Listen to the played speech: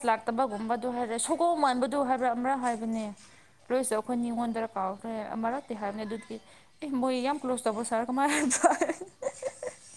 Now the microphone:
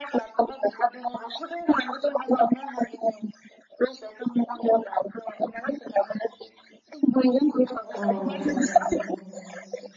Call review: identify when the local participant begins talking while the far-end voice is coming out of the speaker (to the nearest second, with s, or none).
8 s